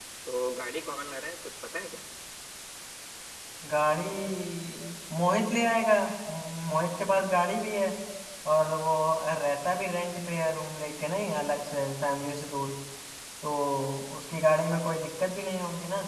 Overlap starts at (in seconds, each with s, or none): none